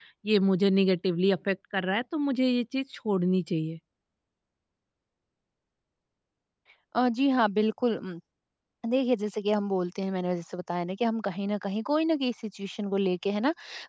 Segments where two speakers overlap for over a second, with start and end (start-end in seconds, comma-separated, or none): none